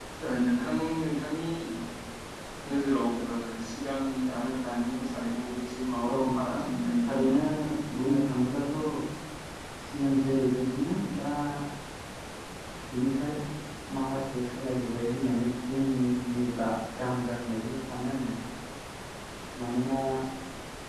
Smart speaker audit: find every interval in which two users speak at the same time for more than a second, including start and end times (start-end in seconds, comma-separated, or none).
6.1-7.4